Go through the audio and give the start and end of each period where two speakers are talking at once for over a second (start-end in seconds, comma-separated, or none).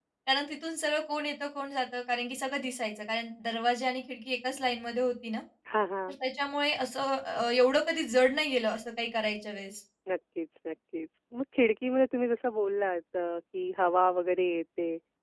none